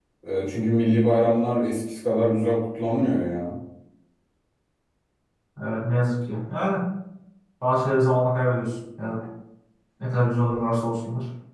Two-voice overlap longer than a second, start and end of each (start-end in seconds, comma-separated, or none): none